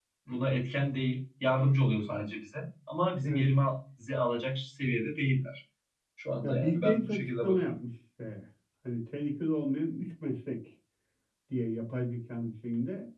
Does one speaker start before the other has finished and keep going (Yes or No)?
Yes